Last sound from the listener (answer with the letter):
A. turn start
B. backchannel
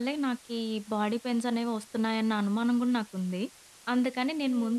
B